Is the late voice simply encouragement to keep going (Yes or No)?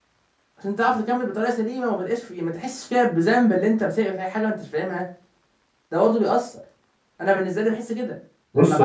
No